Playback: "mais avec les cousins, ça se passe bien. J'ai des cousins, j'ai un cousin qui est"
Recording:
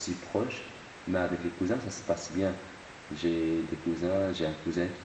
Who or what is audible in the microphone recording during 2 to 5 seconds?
echo only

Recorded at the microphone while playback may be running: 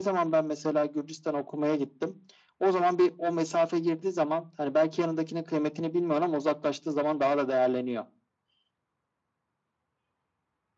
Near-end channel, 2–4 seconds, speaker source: echo only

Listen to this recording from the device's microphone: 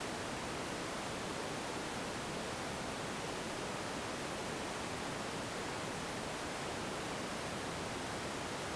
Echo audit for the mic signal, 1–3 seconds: neither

